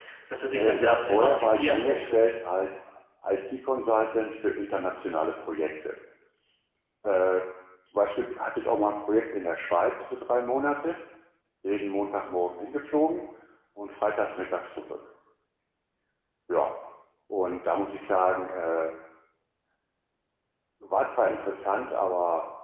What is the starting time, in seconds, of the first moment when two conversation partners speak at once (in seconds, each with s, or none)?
0.5 s